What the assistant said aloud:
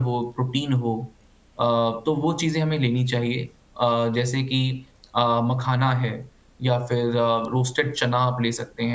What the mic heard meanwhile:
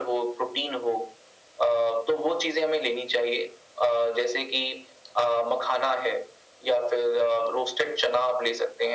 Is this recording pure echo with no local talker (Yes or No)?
Yes